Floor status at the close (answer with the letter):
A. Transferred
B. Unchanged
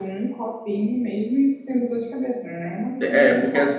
A